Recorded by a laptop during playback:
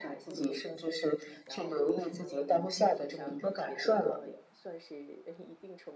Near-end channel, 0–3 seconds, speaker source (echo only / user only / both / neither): both